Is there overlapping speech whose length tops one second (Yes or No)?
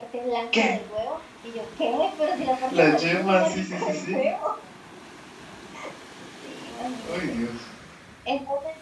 Yes